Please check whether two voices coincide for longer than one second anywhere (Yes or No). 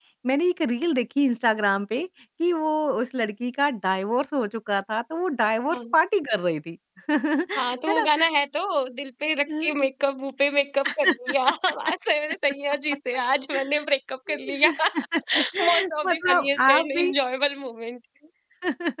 Yes